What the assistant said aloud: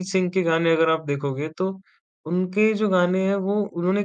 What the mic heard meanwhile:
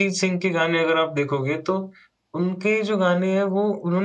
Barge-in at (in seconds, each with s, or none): none